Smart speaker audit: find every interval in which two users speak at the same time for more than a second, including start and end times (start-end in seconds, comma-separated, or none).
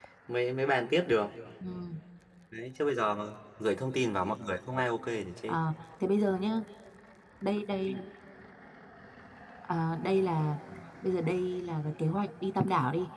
none